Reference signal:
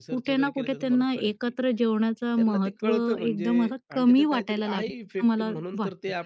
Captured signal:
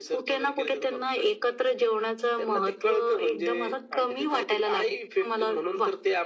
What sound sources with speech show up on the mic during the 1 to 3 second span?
echo only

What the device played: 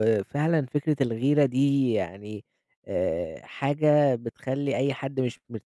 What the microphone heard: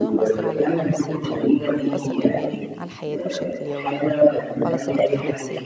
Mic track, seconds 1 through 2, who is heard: both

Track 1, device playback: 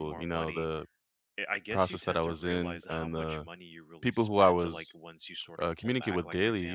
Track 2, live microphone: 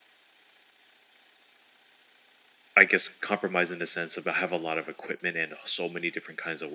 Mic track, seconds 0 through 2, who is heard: neither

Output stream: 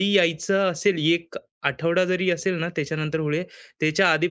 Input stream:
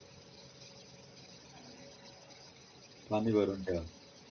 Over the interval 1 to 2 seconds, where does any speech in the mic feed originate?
neither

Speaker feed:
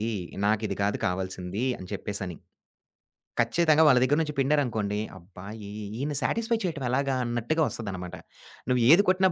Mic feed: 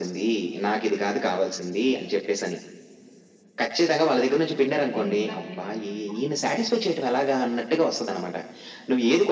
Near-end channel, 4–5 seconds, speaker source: both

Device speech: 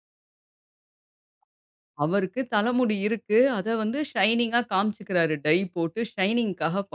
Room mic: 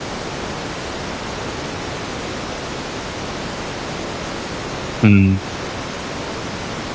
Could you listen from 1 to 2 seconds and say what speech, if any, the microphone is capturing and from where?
neither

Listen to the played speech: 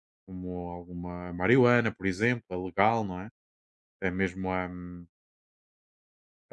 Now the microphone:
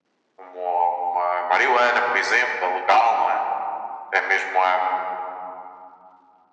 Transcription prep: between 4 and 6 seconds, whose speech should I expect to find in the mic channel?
echo only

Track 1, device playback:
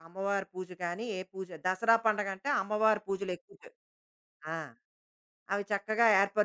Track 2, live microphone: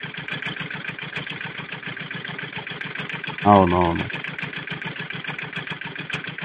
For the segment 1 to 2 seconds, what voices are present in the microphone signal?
neither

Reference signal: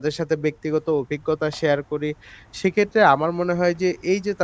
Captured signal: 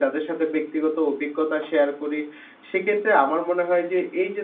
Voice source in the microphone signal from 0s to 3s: echo only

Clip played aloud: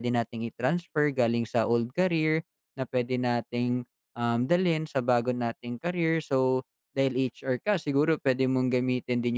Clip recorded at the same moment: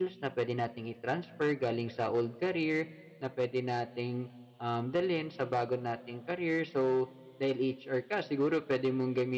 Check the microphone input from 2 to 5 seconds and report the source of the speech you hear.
echo only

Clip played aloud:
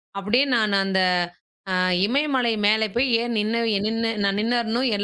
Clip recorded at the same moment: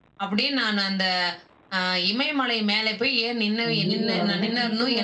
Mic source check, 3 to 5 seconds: both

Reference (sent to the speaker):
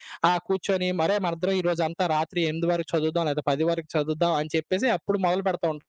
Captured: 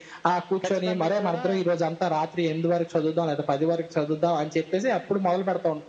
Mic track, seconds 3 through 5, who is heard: echo only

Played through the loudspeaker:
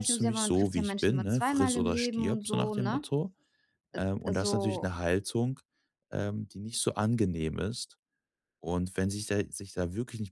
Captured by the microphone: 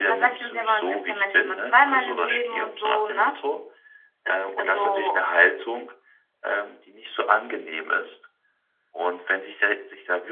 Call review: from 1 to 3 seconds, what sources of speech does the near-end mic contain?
echo only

